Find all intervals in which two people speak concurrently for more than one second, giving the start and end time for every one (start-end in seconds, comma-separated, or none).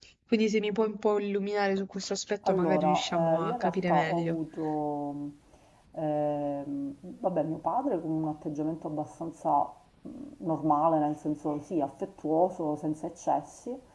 2.5-4.4